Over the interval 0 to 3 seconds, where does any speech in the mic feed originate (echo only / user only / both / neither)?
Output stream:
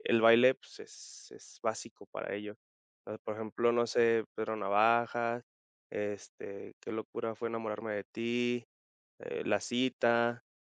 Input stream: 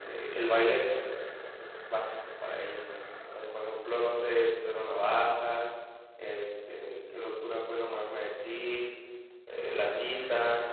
echo only